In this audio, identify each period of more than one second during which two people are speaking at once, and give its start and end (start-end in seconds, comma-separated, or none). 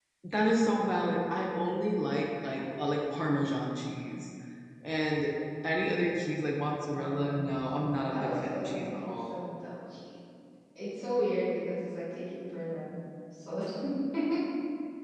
6.9-9.4